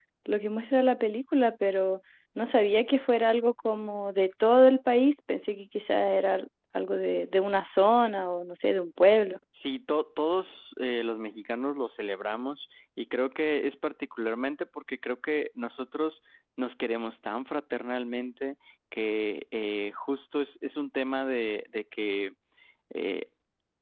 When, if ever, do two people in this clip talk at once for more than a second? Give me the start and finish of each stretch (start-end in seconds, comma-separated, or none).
none